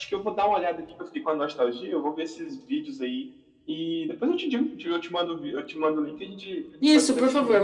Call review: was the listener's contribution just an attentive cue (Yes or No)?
No